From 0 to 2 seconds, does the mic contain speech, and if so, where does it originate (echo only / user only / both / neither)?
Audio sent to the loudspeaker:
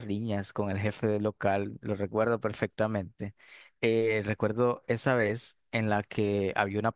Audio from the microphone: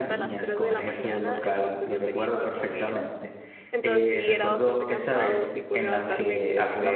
both